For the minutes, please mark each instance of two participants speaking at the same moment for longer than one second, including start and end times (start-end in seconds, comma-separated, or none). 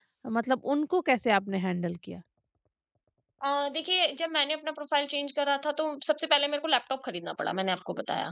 none